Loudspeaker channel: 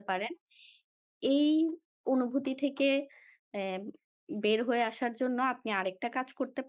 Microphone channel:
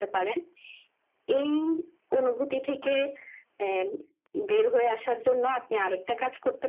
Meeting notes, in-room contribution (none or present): none